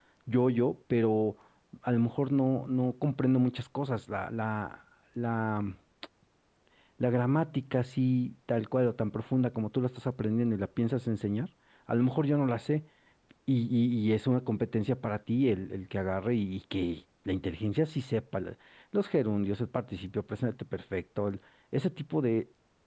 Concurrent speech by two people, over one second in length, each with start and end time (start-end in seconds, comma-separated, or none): none